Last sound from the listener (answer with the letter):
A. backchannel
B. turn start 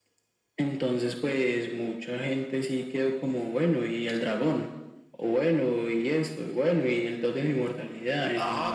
B